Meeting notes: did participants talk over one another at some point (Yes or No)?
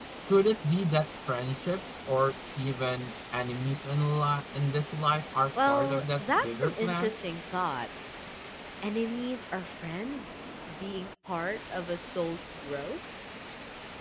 Yes